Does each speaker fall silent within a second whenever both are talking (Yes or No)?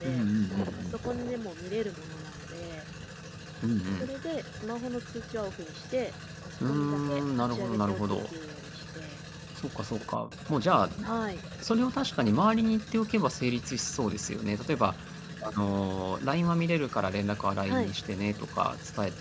No